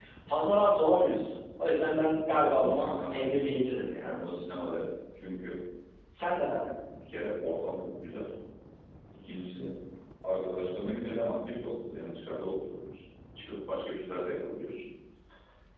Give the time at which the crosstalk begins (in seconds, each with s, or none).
2.3 s